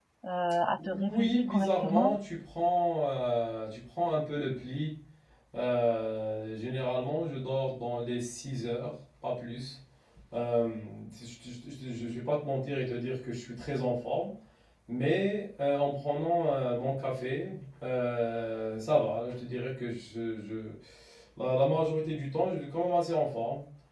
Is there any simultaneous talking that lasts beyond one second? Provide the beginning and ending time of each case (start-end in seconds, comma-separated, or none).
0.8-2.2